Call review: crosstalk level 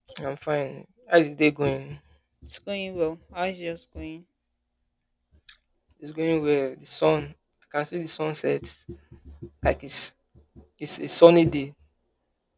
none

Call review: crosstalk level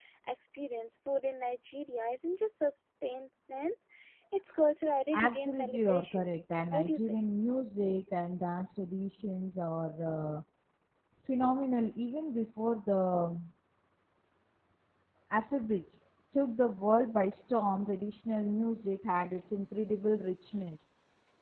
present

